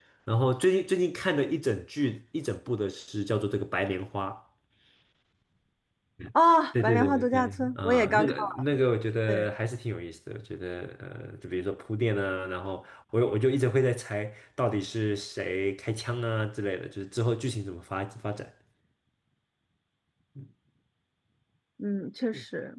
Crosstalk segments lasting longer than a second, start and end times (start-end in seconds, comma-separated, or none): 6.8-8.3